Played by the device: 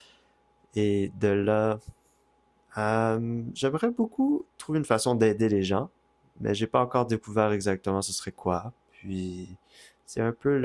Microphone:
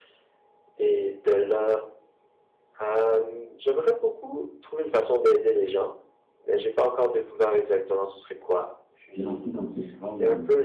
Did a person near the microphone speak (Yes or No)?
Yes